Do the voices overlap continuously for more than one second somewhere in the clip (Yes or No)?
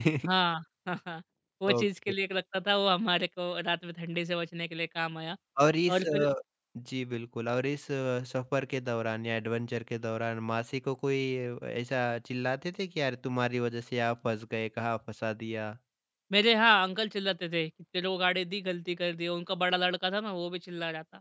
No